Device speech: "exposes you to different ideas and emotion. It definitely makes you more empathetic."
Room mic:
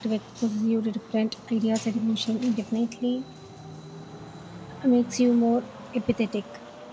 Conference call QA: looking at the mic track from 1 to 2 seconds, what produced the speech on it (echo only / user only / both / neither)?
echo only